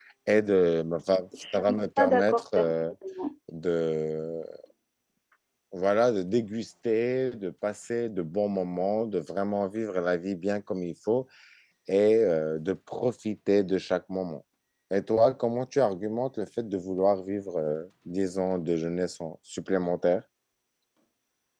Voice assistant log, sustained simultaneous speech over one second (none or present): present